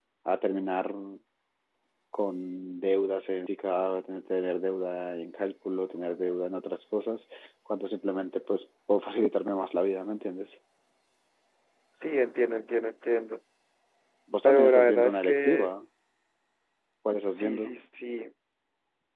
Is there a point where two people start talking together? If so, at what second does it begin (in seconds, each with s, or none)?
14.4 s